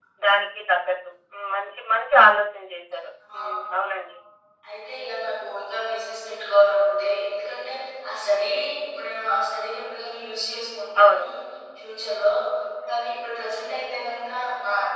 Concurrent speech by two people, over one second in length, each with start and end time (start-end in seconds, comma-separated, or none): none